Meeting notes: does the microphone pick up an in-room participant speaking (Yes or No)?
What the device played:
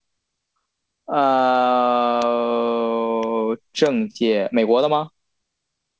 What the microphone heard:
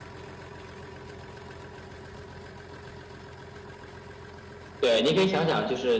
Yes